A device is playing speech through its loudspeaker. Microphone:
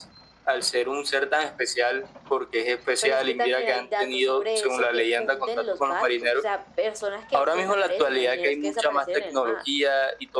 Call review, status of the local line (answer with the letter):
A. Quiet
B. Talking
A